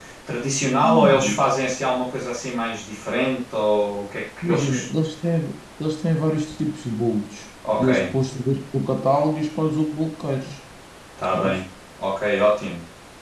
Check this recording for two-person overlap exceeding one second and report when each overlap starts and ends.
none

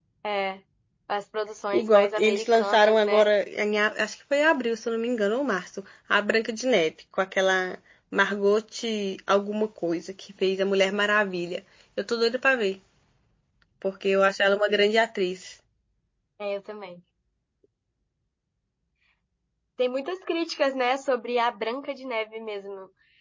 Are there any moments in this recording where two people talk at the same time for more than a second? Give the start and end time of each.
1.7-3.3

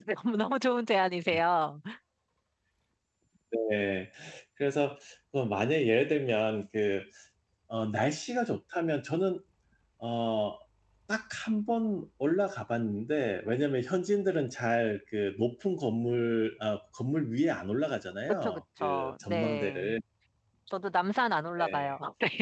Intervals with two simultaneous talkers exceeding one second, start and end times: 18.4-19.9

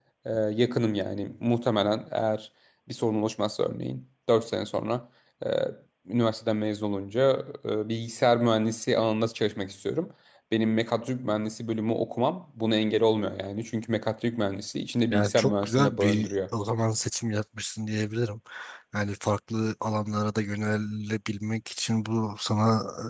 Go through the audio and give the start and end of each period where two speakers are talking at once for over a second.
15.1-16.3

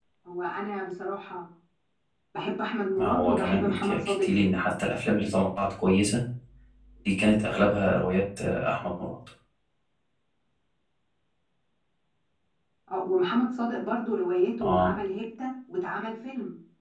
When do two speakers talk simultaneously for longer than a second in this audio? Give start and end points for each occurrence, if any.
3.0-4.7

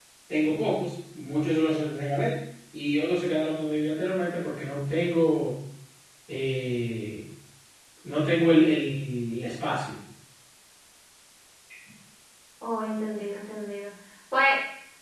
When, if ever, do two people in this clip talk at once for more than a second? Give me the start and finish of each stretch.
none

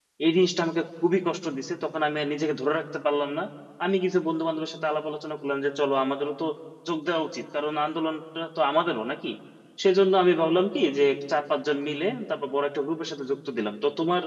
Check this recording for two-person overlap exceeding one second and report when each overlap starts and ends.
none

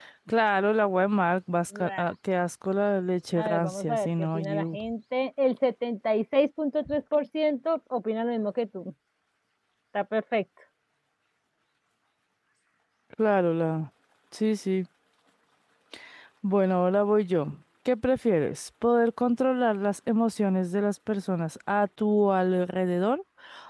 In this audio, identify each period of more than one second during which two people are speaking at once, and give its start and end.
3.4-4.8

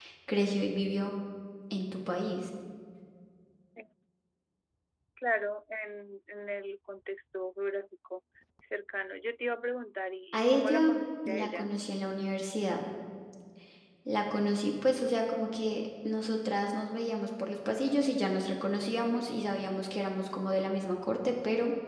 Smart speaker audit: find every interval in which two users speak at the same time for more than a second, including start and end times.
10.3-11.7

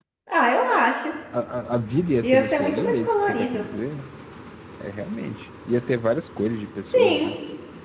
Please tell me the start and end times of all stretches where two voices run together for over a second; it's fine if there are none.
2.2-3.6

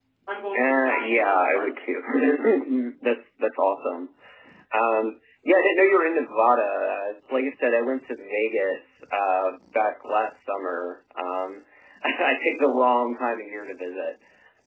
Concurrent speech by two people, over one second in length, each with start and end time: 0.6-1.8

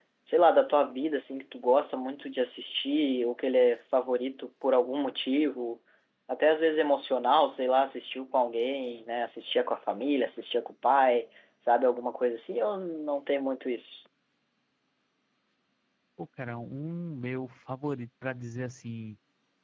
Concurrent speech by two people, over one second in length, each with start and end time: none

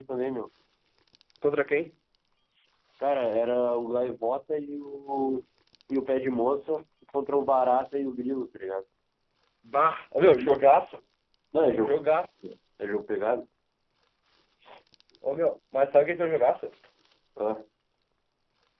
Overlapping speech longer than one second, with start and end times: none

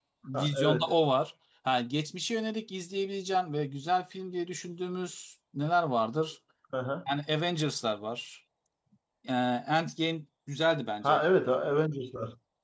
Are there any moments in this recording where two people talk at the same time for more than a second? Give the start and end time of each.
none

